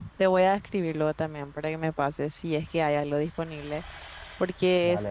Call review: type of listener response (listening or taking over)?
listening